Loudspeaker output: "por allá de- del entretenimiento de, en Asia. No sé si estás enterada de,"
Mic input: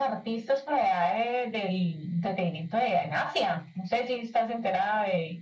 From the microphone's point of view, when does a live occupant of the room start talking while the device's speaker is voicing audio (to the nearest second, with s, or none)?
none